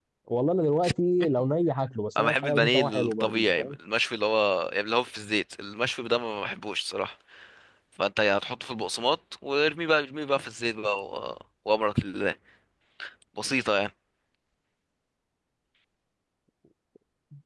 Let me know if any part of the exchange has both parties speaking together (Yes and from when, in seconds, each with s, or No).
Yes, from 2.2 s